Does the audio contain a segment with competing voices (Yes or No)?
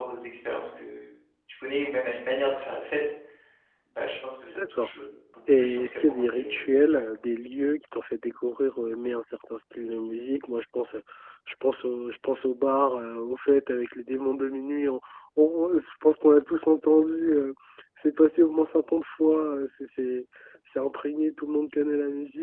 Yes